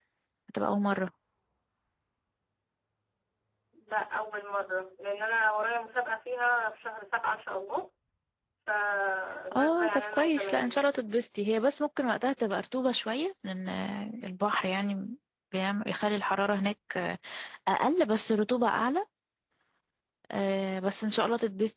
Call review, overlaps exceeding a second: present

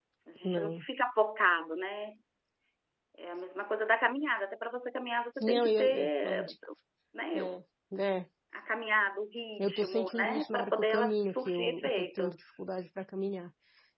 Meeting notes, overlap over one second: present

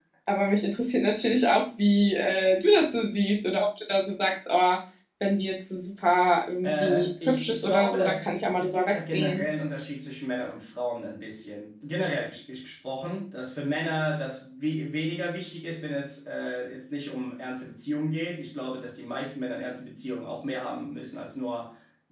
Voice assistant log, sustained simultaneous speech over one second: present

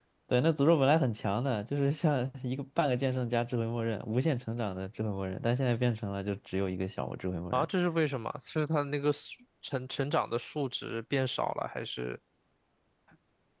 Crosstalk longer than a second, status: none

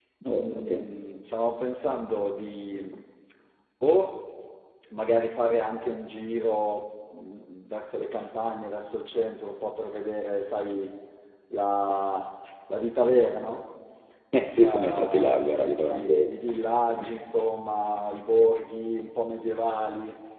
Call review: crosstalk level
present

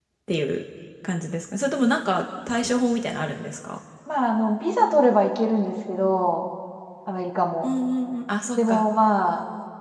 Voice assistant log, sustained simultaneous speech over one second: none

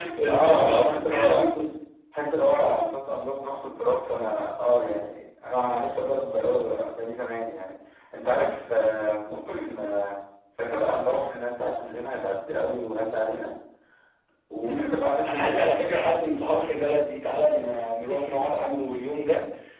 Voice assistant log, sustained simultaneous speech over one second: present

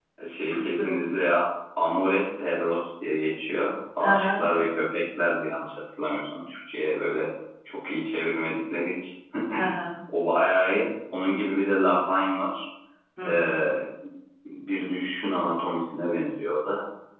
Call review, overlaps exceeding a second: none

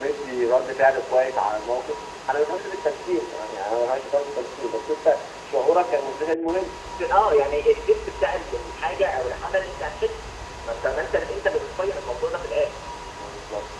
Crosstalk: none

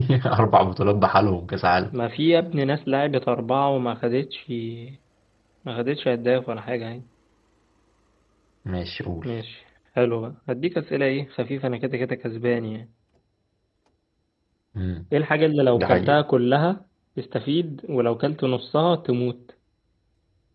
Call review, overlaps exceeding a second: none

